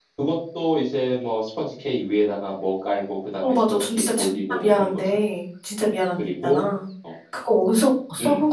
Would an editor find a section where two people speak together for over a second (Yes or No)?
Yes